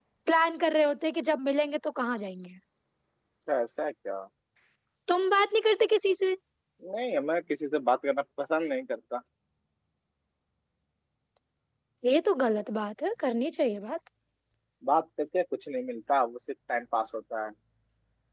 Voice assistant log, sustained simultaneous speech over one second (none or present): none